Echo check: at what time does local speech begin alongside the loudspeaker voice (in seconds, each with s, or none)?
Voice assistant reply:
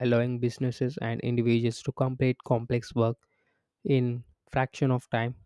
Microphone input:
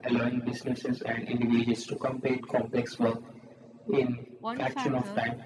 4.4 s